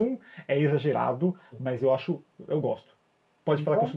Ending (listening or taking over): listening